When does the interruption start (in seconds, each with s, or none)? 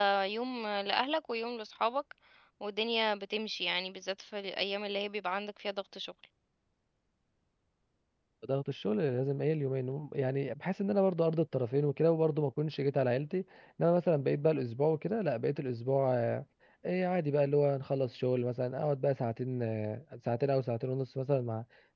none